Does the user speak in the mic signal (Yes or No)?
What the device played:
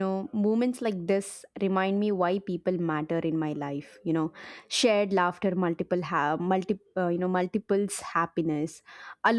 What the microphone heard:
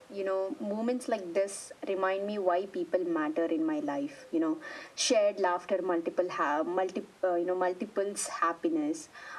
No